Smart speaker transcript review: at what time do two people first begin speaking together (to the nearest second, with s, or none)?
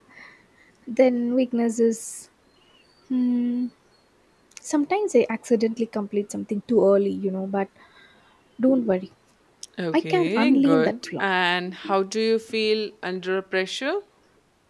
10 s